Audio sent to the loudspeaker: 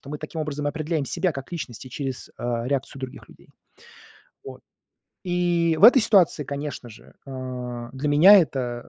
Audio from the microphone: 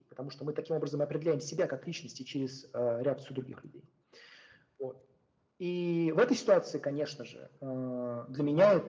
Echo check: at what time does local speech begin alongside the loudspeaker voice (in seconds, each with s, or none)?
none